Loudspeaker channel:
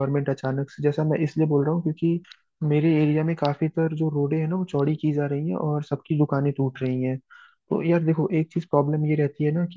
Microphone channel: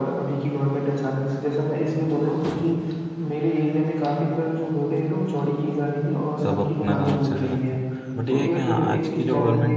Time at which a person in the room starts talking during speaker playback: 6.4 s

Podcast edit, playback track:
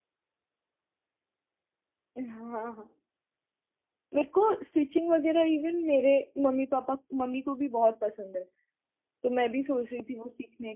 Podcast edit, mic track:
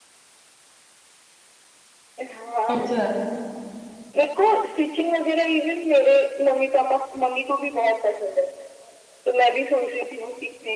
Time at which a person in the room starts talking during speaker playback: 2.7 s

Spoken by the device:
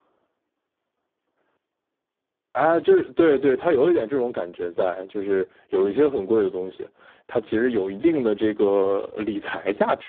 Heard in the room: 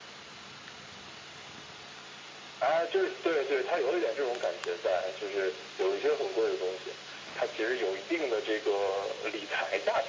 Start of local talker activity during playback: none

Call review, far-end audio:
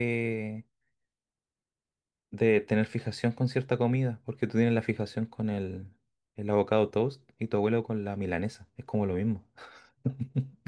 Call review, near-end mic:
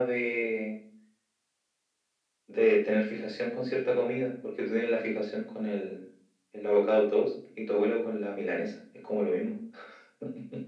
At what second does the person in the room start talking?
none

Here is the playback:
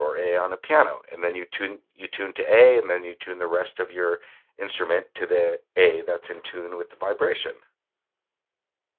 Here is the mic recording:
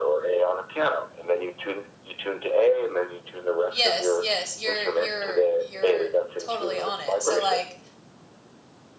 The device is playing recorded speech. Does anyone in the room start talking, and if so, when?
3.7 s

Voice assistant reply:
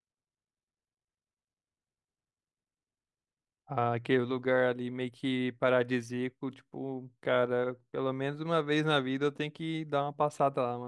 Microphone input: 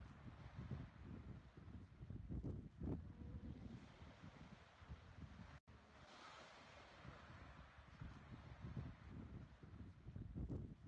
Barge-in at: none

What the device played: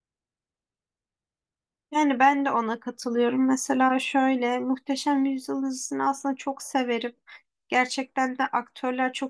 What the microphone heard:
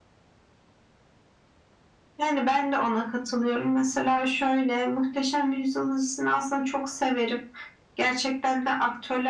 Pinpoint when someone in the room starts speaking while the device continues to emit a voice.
none

